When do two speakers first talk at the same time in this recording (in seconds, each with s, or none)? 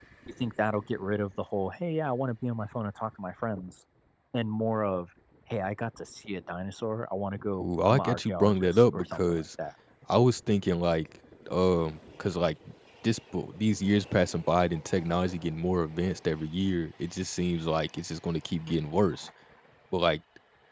7.6 s